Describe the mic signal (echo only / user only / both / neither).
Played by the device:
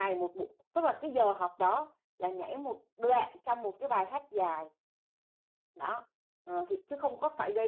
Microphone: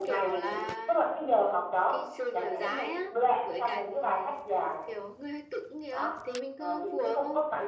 both